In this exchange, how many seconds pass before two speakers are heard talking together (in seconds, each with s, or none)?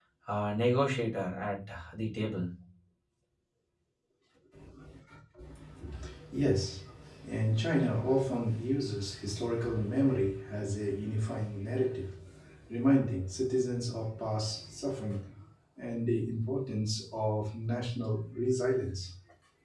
none